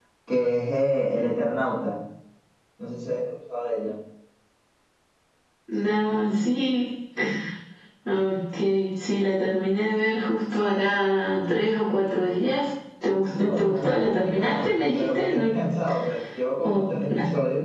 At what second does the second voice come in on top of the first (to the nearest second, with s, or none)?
13 s